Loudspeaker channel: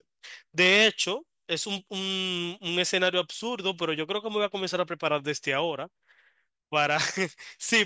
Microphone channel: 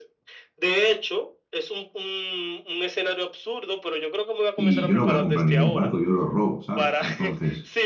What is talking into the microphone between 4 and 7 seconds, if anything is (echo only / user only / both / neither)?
both